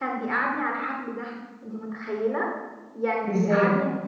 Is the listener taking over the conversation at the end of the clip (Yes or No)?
No